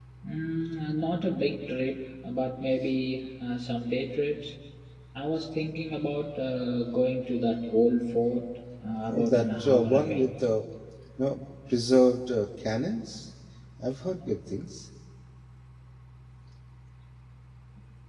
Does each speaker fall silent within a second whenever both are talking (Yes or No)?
No